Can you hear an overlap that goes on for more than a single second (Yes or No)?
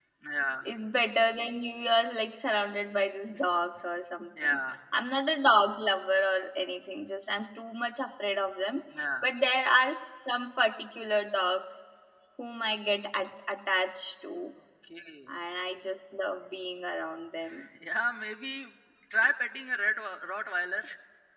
No